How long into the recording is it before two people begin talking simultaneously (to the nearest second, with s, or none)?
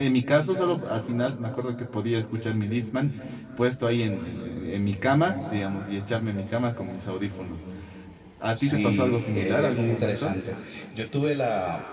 9 s